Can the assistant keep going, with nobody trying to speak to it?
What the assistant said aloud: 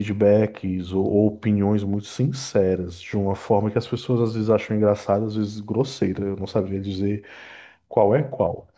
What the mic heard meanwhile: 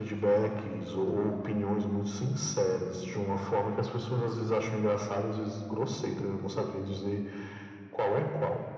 Yes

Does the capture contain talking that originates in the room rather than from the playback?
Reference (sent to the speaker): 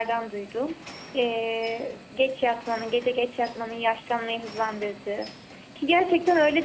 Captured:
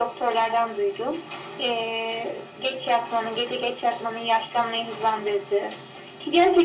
No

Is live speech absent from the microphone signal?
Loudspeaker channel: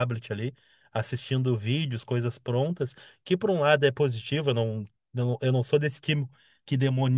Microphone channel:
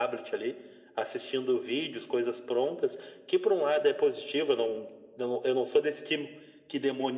Yes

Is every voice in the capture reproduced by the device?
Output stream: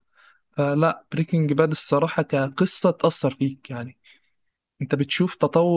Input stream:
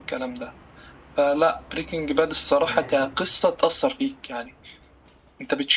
No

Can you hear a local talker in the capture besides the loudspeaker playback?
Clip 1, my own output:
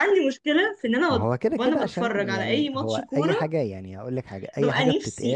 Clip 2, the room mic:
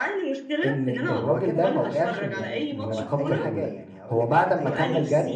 Yes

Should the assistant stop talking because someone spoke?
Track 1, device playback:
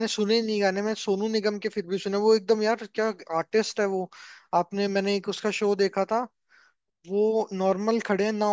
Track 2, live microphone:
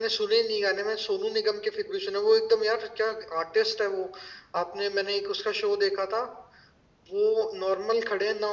No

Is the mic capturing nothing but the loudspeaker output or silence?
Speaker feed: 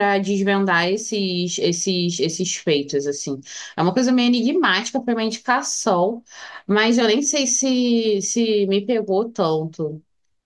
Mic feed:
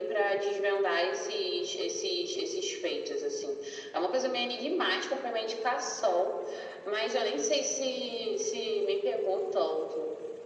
Yes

